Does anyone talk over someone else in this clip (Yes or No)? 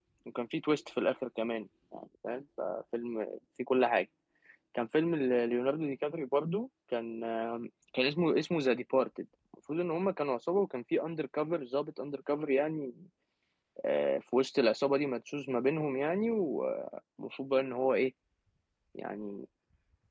No